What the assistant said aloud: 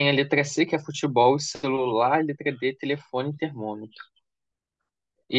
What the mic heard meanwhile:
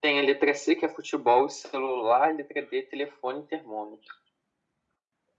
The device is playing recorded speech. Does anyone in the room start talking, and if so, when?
none

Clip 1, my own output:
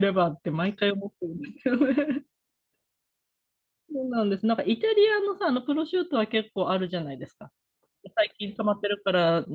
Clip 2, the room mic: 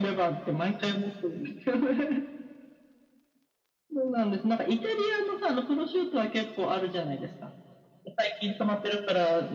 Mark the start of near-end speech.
none

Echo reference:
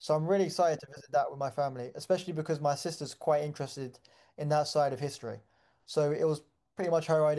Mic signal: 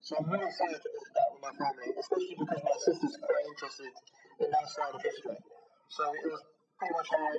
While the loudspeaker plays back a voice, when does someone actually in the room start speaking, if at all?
none

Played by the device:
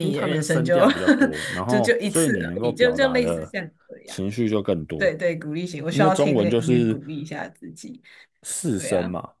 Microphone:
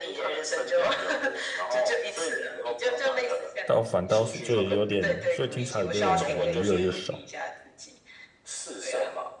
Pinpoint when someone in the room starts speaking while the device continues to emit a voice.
3.6 s

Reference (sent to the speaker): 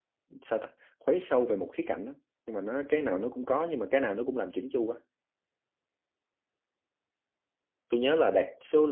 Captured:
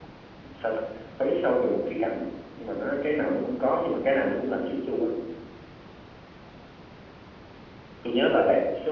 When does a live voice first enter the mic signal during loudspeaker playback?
none

